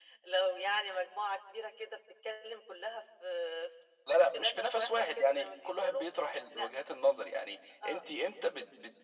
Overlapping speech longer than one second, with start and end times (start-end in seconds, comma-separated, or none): 4.3-6.0